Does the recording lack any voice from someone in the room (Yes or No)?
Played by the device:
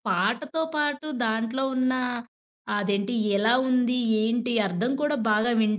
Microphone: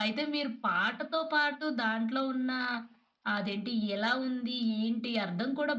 Yes